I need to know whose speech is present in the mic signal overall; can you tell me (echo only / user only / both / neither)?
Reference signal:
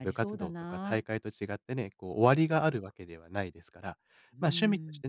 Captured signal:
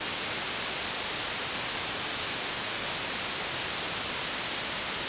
neither